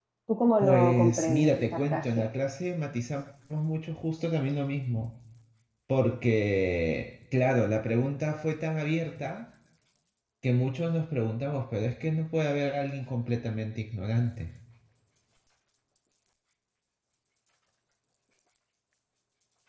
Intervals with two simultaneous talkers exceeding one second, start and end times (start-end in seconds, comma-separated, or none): 0.6-2.0